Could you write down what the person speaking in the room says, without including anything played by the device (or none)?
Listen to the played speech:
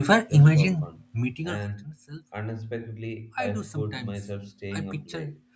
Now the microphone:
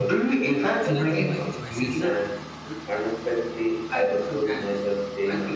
explaining my choices